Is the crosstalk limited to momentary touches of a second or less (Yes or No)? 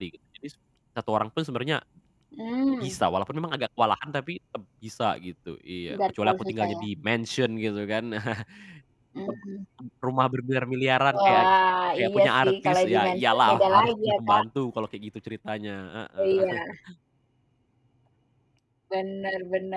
No